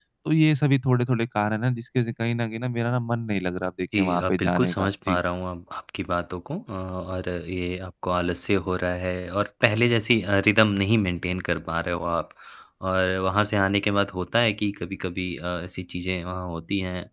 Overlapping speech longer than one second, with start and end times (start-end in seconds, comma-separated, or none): 4.0-5.2